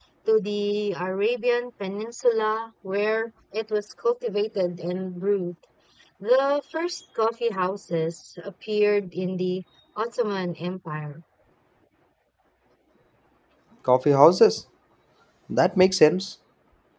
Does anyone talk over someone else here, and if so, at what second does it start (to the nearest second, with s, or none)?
none